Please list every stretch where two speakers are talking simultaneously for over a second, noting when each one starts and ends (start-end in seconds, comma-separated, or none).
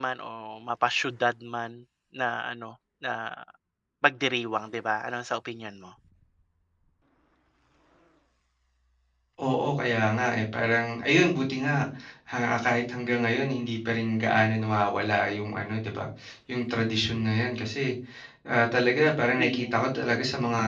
none